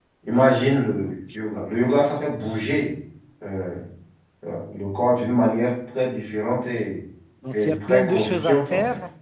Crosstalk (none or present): present